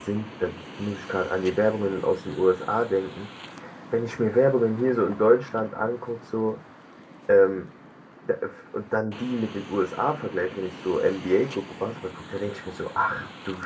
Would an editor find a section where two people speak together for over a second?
No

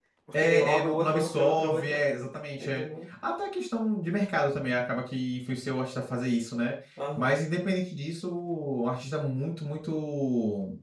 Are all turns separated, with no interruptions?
No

